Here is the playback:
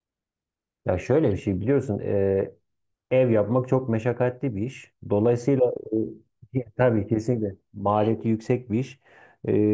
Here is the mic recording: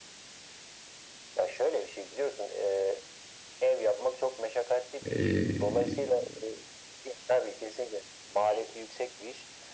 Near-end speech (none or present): present